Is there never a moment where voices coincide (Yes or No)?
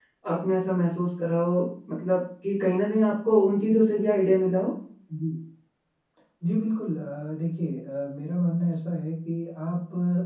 Yes